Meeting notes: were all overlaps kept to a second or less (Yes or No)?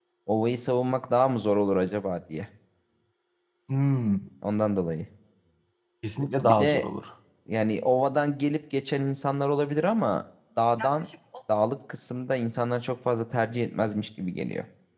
Yes